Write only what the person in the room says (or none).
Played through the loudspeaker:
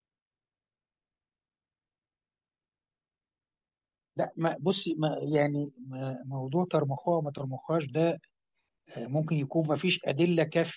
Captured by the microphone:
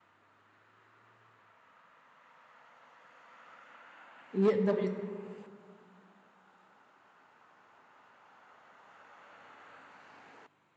يقدر